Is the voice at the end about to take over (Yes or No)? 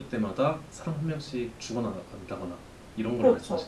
Yes